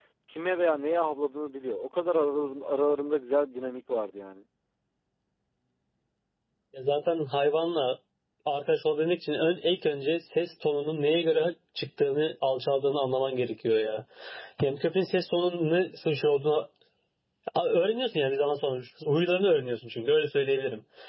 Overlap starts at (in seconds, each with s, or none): none